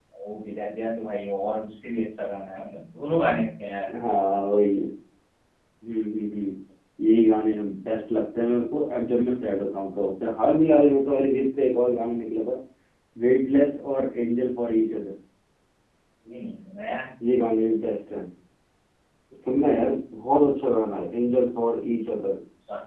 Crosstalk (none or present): none